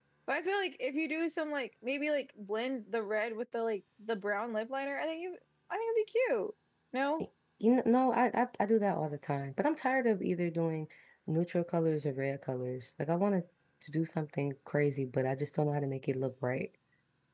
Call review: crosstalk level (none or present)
none